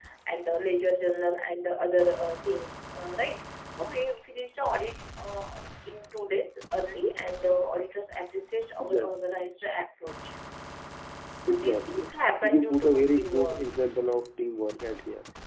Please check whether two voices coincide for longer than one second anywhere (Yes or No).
Yes